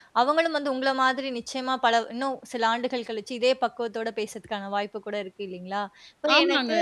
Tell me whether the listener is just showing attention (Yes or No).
Yes